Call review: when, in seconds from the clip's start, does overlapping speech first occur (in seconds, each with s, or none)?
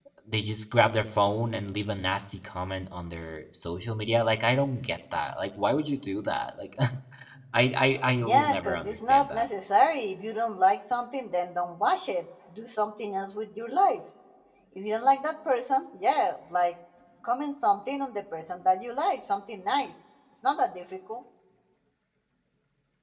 8.2 s